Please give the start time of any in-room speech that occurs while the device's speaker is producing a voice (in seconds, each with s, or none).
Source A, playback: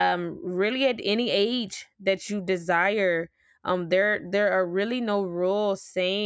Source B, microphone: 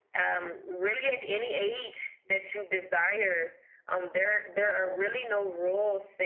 none